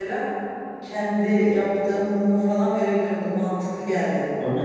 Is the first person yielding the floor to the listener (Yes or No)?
Yes